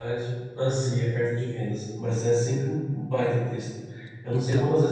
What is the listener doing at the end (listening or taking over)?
listening